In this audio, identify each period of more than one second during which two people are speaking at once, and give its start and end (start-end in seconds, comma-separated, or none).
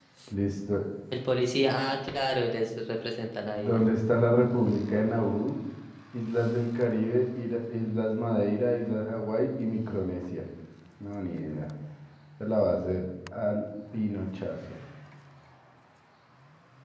none